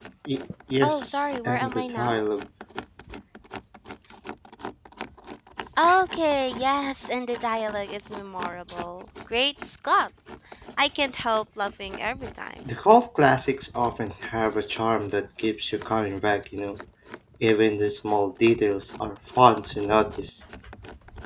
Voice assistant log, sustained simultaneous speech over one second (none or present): present